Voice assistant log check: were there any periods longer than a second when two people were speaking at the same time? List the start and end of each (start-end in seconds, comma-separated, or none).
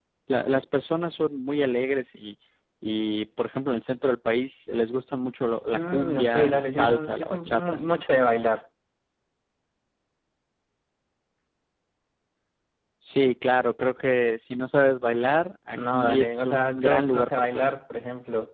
5.7-7.8, 15.7-17.7